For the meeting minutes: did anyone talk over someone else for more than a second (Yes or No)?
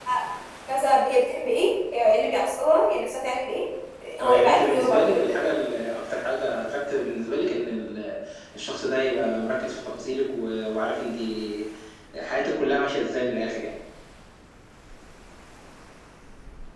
Yes